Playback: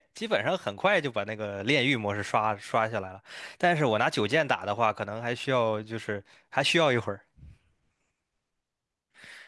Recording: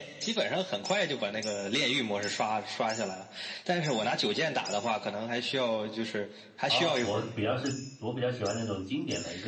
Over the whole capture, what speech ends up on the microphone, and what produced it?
both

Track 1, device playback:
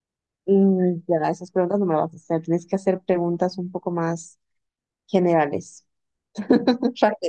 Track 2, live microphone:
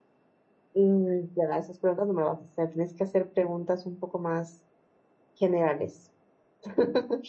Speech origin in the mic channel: echo only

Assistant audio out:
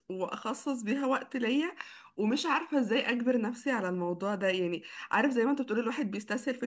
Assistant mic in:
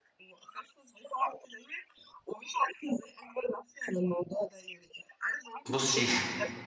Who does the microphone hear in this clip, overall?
both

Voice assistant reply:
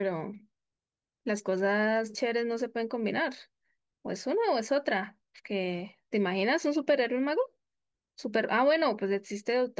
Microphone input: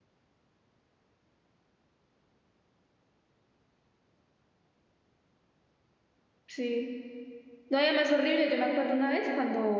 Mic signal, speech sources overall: user only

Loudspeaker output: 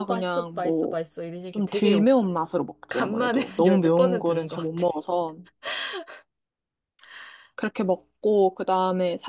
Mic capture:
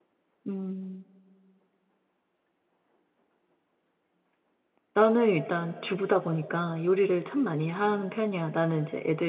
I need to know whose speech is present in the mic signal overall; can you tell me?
user only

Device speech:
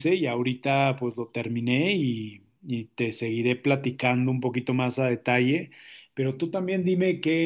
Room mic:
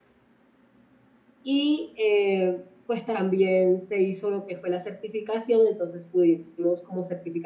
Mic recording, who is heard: user only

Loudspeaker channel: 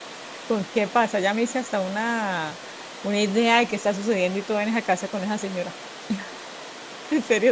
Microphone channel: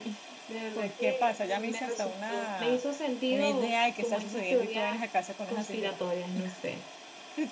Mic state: both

